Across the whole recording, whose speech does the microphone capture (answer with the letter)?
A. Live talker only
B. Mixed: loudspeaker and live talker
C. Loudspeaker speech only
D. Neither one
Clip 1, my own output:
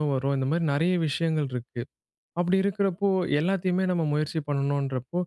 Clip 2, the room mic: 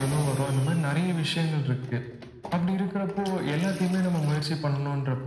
C